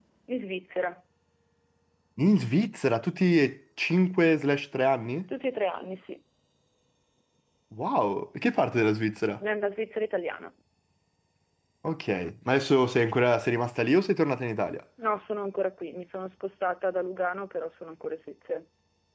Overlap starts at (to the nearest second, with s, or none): none